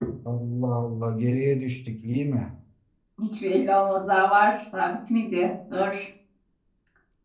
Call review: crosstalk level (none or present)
none